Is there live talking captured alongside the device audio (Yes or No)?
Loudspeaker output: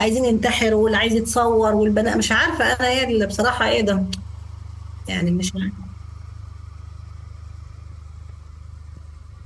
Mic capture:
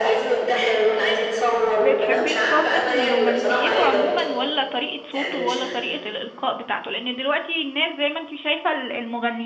Yes